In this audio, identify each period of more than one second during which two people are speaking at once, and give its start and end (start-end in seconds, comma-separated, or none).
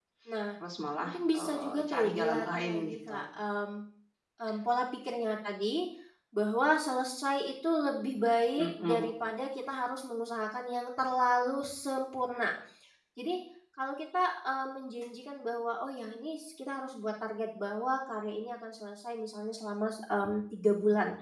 1.0-3.2